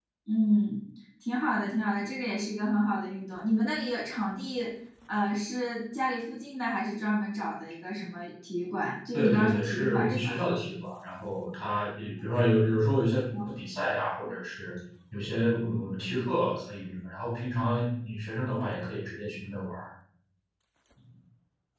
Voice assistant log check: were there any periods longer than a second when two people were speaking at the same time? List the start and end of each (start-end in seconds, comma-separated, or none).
9.1-10.4